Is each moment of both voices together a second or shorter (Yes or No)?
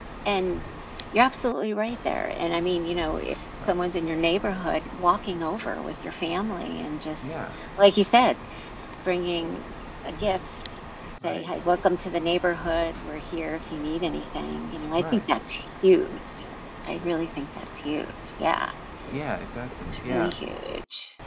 Yes